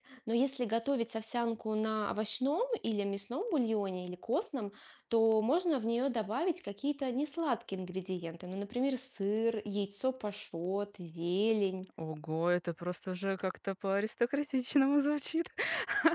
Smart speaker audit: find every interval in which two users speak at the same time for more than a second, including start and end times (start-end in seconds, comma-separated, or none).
none